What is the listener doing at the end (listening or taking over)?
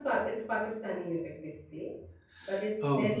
listening